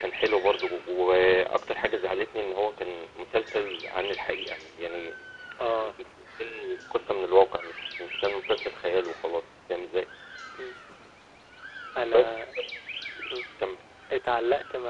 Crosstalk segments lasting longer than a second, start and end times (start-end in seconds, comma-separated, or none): none